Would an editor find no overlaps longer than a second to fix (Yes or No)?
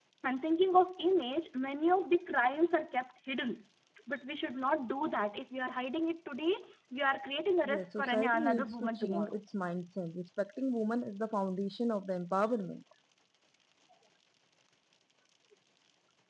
No